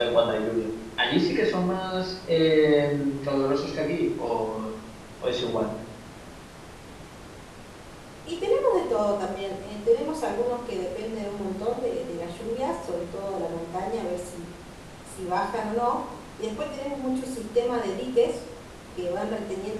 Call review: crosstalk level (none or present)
none